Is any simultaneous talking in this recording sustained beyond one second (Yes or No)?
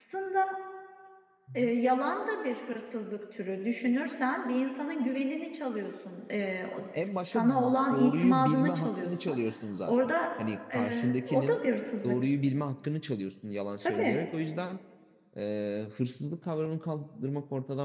Yes